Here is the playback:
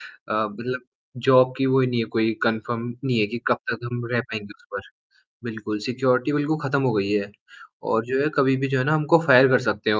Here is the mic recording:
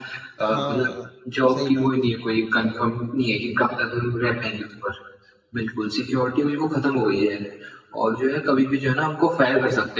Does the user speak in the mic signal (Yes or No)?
Yes